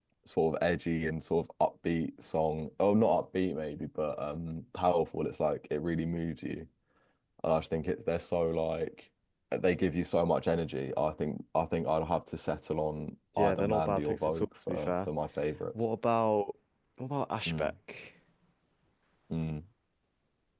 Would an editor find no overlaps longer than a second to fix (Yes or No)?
No